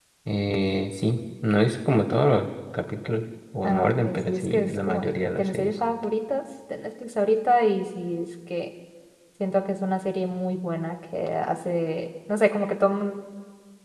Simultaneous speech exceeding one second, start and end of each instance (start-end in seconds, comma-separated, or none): 3.6-5.7